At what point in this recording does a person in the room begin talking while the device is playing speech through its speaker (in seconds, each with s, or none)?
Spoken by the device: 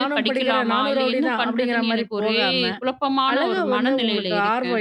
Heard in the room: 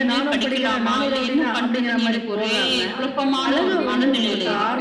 3.0 s